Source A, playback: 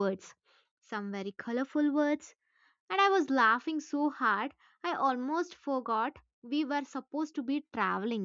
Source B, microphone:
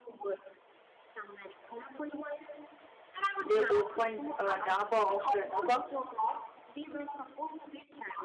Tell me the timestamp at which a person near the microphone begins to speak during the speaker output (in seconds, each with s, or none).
3.4 s